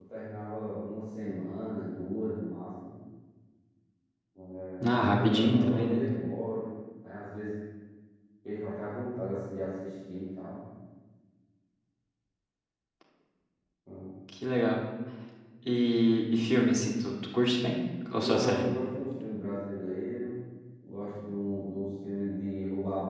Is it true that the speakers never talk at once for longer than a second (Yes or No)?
No